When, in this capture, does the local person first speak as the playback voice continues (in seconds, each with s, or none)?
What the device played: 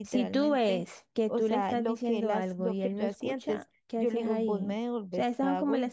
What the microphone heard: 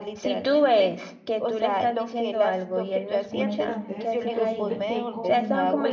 3.3 s